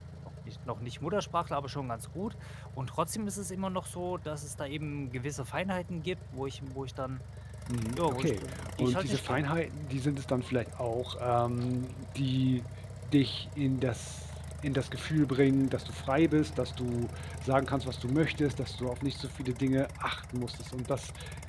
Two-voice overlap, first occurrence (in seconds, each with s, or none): 8.0 s